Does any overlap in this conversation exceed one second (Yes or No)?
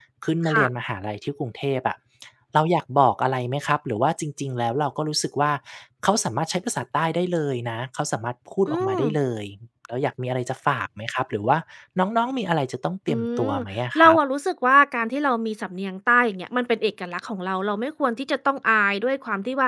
No